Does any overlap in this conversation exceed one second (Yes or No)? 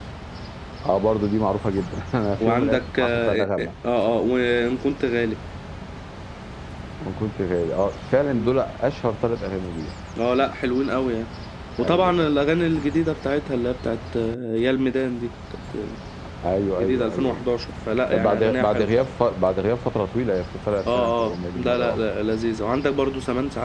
Yes